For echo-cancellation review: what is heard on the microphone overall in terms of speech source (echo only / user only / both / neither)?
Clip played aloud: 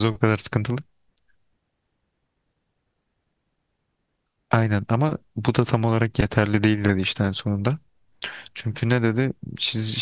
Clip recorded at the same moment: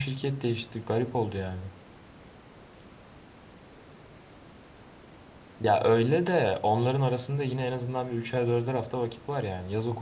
user only